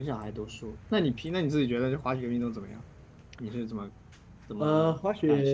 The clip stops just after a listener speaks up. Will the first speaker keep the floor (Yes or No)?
No